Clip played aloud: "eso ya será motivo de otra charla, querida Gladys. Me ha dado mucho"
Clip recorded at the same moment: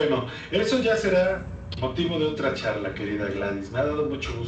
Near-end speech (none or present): none